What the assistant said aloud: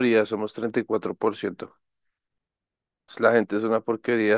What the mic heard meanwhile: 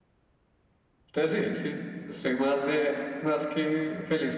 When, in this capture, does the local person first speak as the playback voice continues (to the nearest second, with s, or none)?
1 s